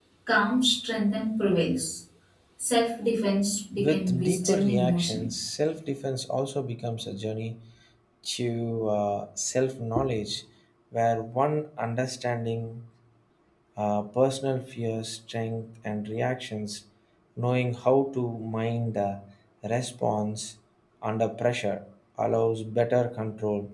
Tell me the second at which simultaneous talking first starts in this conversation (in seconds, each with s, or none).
3.8 s